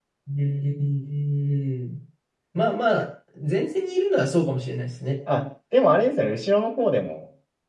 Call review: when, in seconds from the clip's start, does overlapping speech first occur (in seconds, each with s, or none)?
none